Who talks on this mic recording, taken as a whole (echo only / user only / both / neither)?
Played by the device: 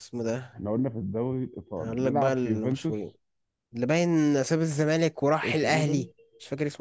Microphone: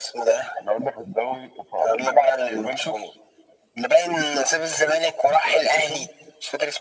echo only